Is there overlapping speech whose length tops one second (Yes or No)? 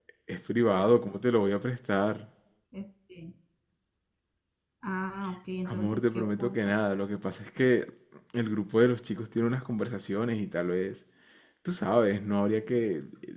Yes